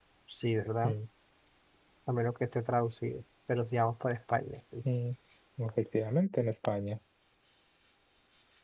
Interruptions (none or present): none